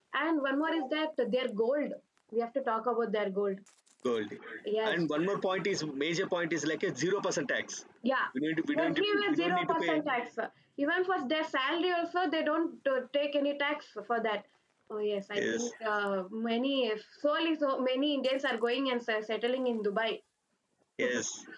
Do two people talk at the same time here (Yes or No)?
Yes